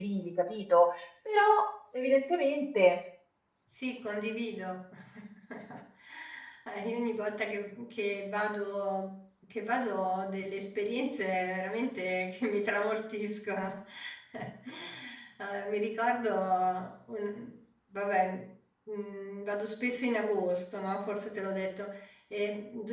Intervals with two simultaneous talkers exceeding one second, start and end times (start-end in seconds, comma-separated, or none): none